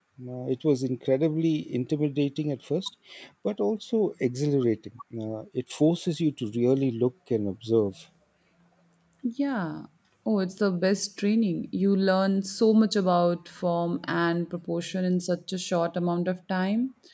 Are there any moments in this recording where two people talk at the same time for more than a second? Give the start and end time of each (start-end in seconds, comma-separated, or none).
none